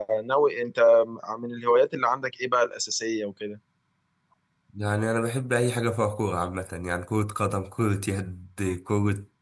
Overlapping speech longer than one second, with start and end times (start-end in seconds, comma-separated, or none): none